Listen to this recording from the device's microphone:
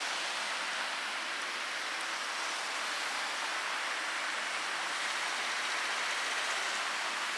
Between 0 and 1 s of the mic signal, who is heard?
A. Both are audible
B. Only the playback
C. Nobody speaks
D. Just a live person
C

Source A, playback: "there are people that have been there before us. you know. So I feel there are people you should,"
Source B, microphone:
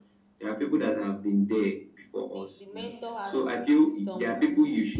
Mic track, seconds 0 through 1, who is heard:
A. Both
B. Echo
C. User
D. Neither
B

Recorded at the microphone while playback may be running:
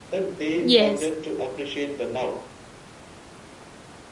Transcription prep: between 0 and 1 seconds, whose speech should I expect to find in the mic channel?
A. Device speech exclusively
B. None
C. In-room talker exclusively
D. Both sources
D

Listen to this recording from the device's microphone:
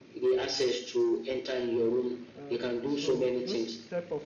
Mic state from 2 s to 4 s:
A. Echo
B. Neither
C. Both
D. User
C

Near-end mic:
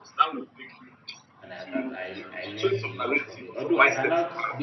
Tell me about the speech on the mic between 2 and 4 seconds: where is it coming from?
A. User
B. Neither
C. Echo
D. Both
D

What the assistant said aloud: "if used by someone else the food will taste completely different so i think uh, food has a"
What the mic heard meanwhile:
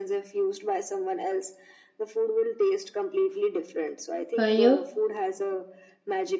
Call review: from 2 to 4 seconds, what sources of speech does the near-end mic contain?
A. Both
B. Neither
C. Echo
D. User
C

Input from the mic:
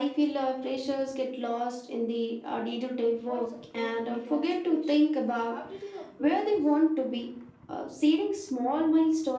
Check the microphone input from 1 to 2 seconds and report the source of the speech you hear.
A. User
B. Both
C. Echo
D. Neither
C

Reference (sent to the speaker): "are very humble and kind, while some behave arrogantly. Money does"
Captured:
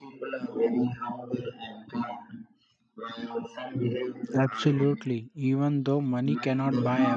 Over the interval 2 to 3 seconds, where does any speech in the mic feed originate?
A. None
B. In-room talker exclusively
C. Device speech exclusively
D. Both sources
C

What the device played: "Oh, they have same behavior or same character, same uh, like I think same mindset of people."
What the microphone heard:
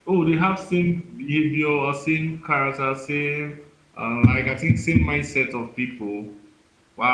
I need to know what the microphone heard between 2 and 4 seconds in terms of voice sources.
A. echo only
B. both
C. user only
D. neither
A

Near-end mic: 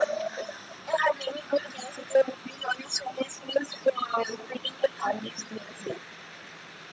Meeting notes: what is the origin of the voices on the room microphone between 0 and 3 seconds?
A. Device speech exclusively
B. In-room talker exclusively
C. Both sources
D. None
A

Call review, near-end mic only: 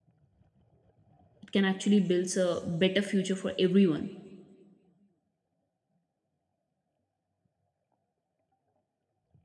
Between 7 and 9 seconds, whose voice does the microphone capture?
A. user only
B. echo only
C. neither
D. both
C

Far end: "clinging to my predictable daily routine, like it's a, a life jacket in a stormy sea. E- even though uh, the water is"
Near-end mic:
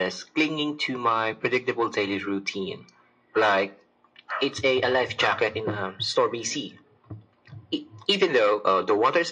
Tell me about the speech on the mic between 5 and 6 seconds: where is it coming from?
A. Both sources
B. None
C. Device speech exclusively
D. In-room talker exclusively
C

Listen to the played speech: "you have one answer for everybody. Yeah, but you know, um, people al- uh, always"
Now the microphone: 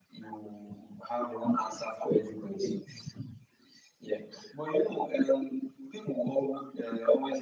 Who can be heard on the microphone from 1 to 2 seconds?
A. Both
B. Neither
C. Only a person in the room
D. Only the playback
D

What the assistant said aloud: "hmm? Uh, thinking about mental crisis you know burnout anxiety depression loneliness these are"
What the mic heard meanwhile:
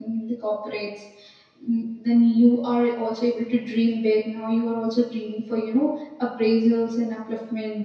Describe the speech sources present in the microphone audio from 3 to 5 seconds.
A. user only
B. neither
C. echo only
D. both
A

